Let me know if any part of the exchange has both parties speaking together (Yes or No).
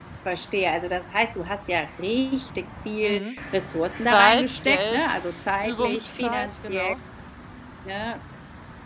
Yes